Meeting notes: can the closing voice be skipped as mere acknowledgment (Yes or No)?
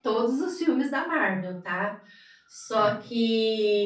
Yes